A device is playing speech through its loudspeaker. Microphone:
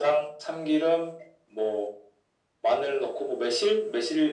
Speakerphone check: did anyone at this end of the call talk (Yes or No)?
No